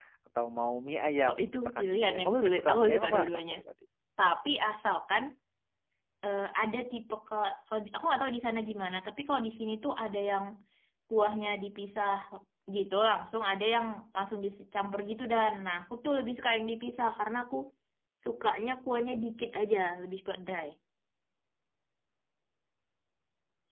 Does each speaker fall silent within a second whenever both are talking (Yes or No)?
No